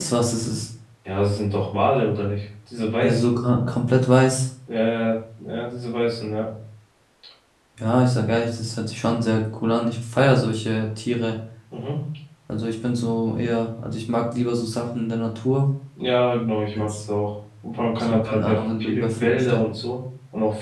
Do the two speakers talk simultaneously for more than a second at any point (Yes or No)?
Yes